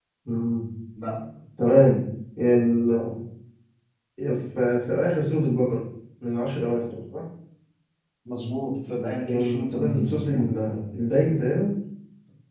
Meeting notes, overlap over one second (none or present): present